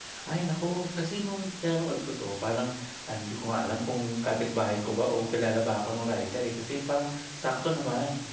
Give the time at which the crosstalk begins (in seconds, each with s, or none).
none